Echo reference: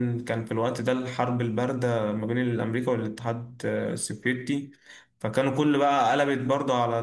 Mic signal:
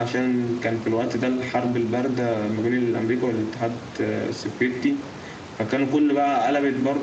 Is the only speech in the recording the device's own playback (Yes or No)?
Yes